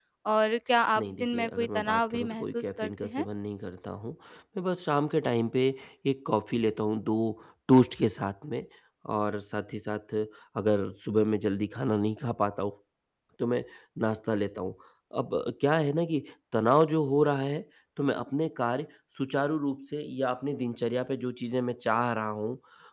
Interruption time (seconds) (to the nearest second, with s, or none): 1 s